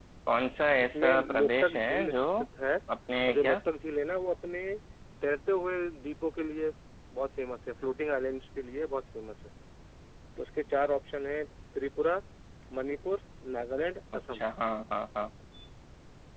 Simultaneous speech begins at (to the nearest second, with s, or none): 1 s